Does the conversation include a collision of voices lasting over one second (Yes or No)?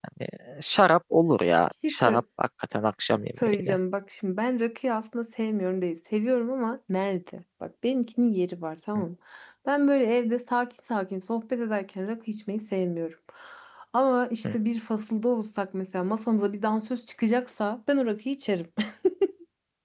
No